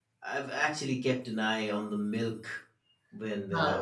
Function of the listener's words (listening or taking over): listening